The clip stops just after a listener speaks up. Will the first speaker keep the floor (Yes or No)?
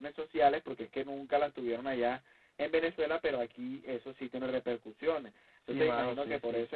No